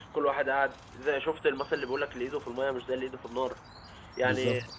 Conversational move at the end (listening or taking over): listening